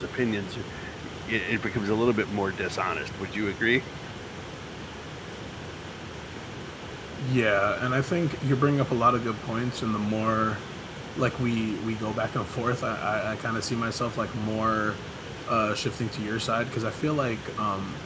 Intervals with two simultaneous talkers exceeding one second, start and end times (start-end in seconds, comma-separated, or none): none